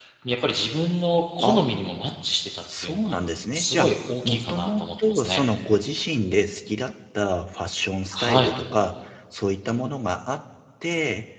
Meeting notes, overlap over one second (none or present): present